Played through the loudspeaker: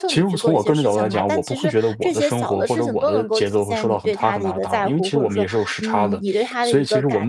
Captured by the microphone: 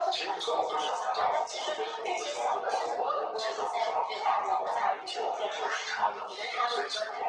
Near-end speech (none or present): none